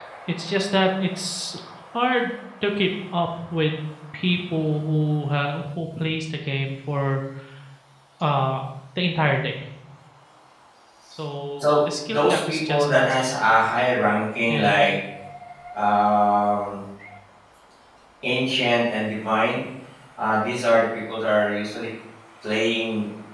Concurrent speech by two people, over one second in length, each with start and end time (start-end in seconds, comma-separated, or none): 11.6-13.4